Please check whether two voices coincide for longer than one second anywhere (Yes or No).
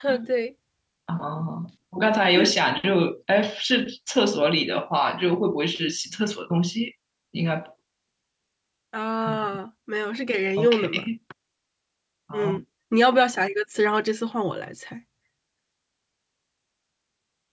No